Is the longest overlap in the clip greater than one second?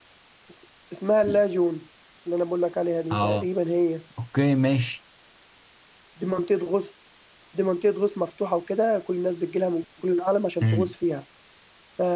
No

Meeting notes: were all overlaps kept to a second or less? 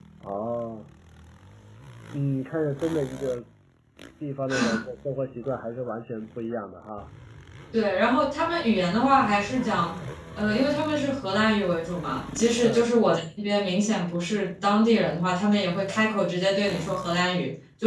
Yes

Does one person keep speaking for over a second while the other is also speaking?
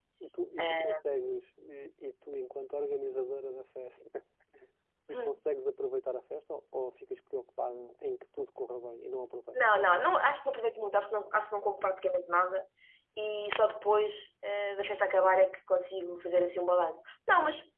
No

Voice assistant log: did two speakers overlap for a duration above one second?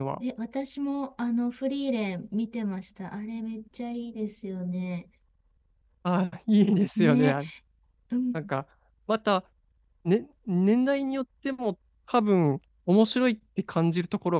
No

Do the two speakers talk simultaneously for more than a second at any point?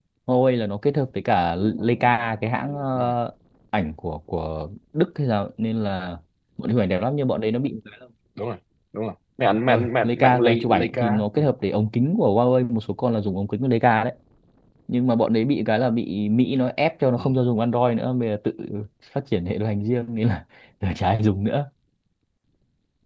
Yes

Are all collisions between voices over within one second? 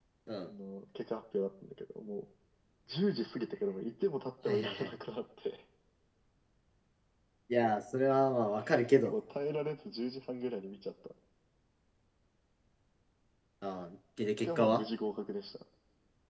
Yes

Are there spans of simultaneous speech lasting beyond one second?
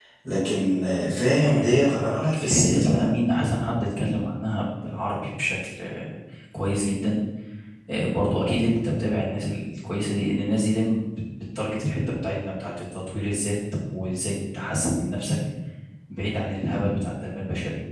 Yes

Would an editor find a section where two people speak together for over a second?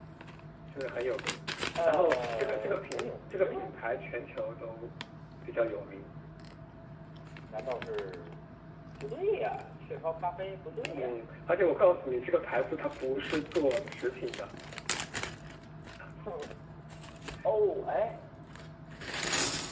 Yes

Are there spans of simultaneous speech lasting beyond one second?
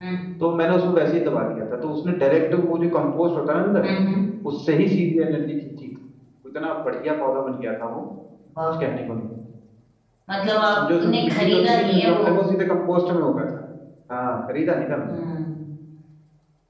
Yes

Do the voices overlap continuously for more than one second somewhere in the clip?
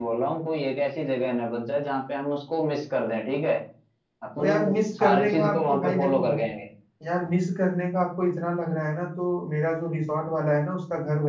Yes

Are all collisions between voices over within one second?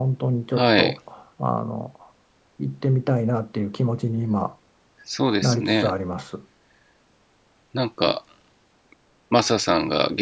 Yes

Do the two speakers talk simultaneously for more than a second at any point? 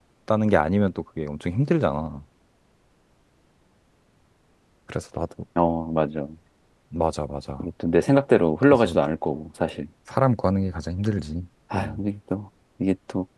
No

